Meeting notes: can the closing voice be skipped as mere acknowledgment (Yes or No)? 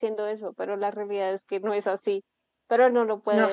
Yes